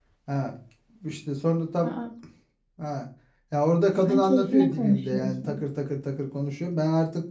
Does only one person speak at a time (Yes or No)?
No